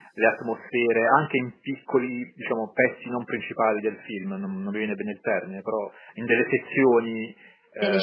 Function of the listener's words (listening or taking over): listening